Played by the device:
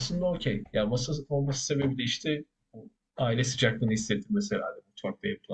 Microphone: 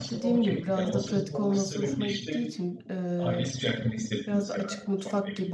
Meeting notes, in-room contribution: present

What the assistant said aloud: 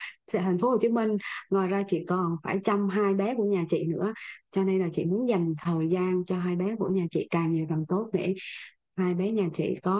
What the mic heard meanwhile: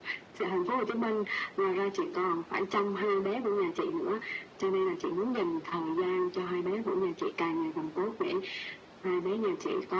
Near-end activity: none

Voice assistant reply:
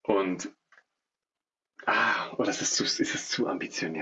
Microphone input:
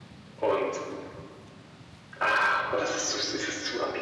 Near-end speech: none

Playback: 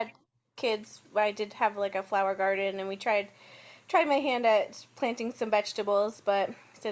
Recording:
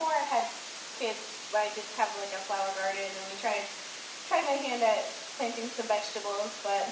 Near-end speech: none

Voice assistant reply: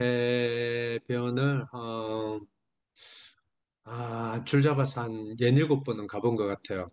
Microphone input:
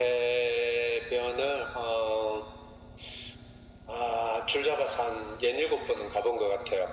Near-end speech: none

